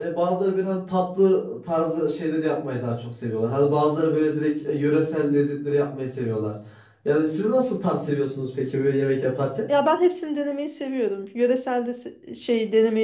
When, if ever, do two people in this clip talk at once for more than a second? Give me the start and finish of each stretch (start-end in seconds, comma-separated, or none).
none